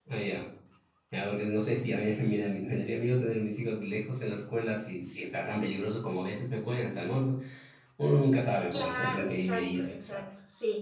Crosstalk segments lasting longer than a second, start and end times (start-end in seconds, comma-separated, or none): 8.7-10.2